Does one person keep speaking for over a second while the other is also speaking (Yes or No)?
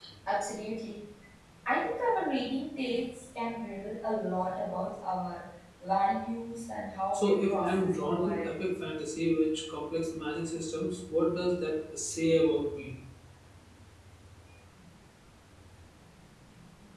Yes